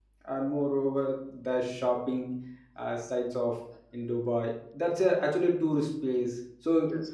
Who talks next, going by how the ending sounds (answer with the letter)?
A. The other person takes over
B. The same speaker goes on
B